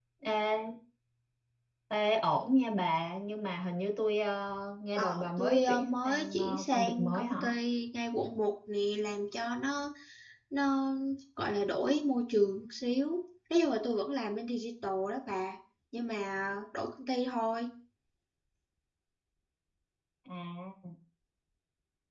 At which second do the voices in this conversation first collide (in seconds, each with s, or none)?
5.0 s